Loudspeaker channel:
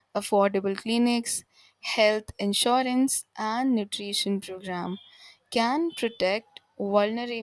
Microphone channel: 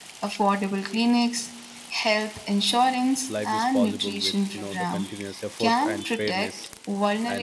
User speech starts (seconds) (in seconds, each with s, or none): 3.3 s